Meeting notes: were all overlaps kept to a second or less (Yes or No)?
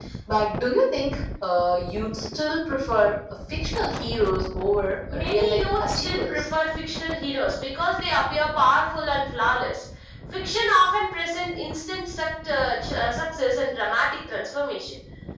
No